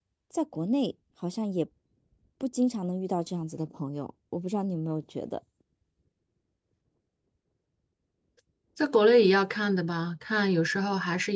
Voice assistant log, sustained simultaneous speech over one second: none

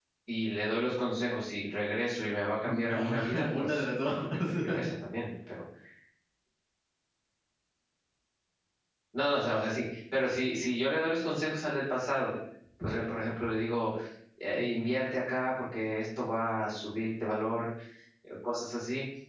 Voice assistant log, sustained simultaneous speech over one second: present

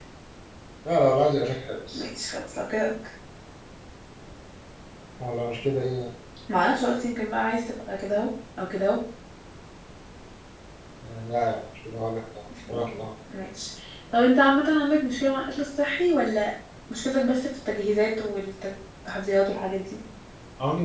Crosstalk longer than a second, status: none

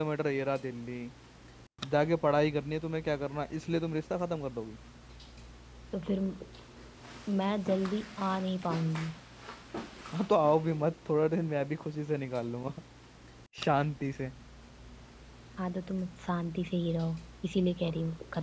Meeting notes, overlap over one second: none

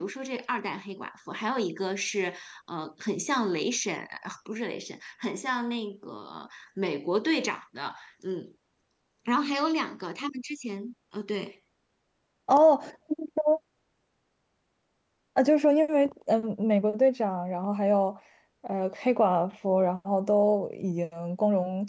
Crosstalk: none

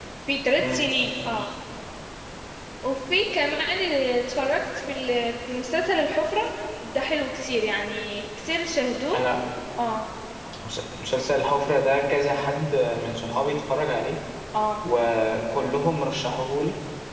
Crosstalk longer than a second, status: none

